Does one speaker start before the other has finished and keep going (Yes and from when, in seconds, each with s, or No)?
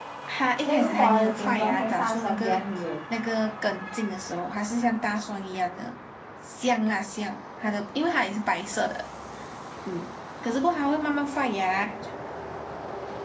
Yes, from 0.6 s